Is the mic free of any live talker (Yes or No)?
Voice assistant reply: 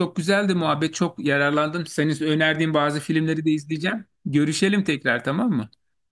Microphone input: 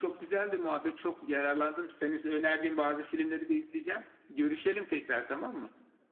Yes